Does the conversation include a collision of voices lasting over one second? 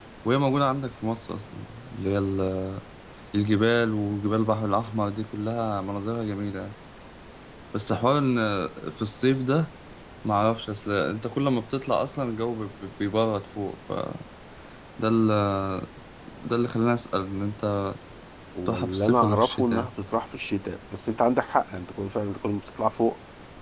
Yes, from 18.7 s

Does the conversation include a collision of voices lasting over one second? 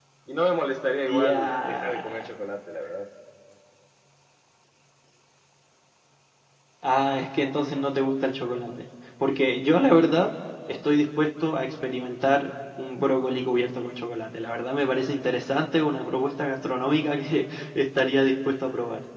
Yes, from 1.0 s

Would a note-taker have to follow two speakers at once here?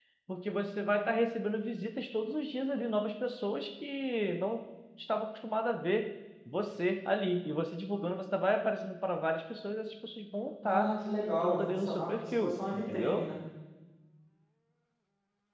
Yes, from 10.6 s

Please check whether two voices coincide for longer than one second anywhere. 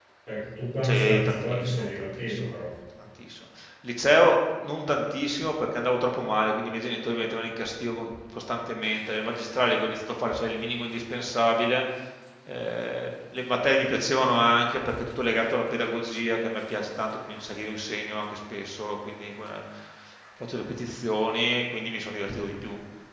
Yes, from 0.8 s

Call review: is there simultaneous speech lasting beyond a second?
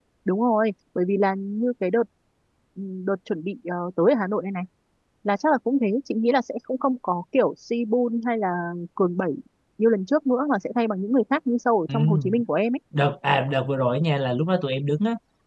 No

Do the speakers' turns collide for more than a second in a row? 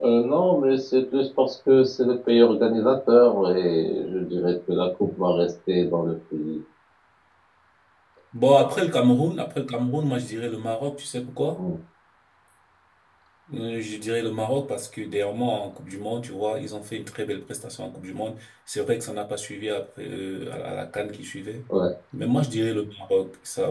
No

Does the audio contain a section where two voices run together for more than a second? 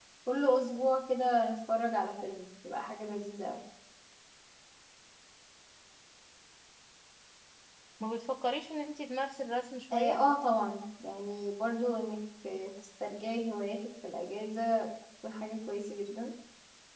No

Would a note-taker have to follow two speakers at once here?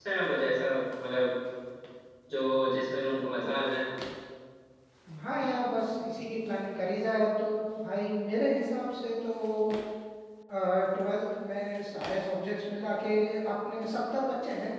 No

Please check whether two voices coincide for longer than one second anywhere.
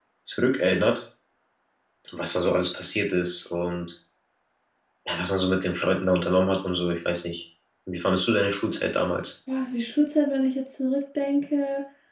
No

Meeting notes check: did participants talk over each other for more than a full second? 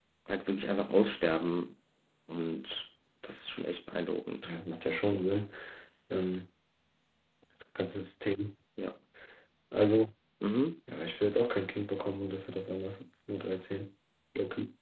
No

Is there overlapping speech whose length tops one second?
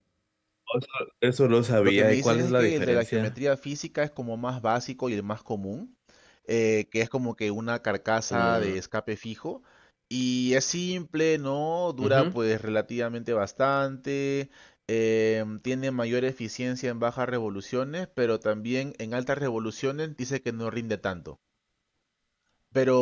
Yes, from 1.8 s

